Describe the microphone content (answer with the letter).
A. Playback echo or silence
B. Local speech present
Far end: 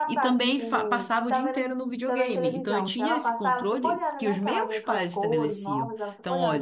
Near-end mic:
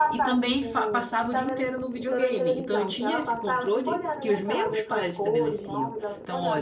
A